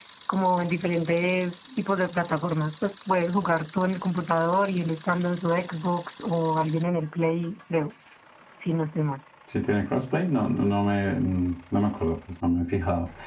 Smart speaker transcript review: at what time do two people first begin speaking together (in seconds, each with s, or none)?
none